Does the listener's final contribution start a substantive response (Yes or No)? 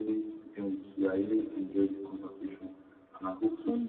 No